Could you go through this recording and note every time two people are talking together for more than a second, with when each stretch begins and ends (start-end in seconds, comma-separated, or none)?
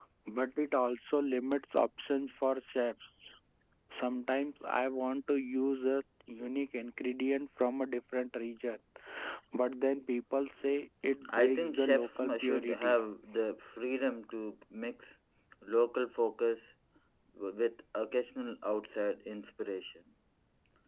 11.3-13.0